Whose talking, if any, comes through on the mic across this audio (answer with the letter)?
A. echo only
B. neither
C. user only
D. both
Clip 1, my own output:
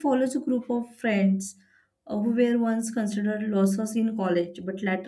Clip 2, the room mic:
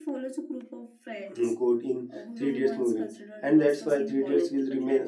D